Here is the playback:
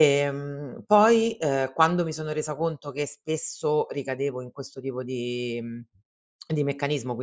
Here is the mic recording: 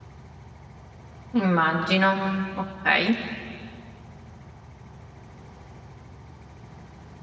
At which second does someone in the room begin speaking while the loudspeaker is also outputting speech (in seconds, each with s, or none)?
1.3 s